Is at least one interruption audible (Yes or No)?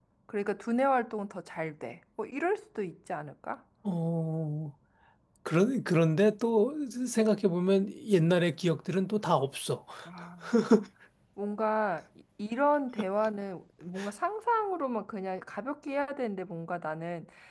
No